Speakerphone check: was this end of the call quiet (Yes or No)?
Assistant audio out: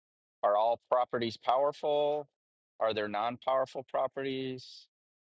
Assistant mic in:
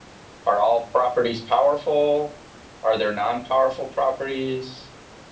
Yes